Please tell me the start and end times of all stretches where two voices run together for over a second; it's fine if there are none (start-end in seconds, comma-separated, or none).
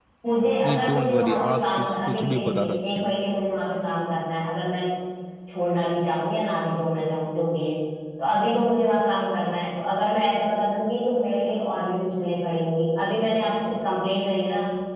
0.6-3.1